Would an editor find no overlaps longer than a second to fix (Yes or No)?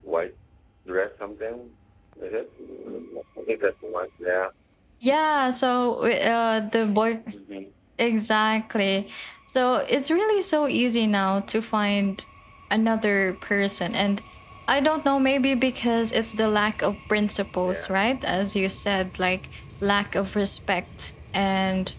Yes